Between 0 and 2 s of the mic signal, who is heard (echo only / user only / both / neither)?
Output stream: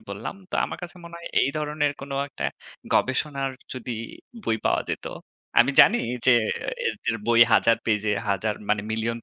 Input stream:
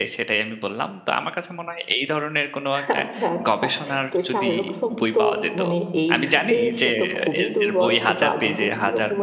echo only